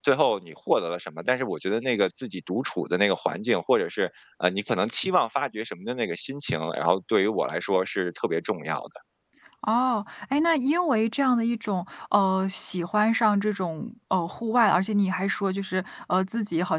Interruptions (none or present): none